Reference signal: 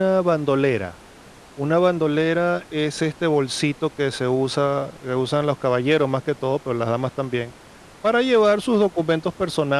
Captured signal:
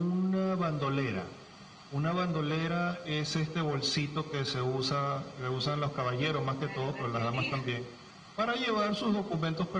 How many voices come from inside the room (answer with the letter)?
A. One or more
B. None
A